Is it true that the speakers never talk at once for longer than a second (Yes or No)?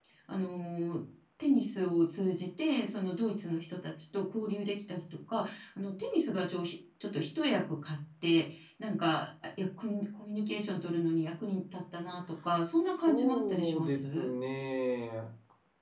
No